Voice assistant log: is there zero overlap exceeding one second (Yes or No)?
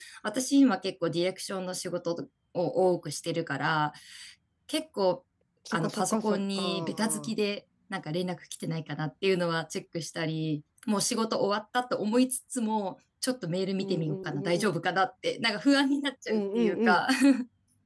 No